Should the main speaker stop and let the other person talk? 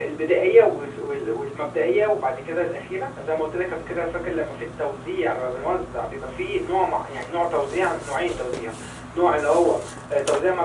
No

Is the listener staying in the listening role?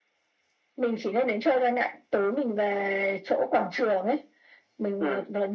Yes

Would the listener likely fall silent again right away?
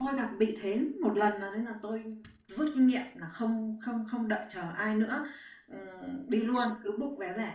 Yes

